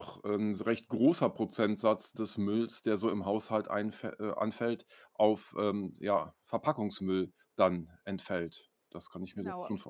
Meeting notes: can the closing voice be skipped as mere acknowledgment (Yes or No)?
No